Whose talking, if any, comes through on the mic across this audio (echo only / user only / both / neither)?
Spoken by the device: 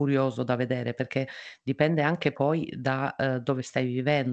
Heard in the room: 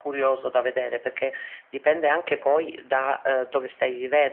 echo only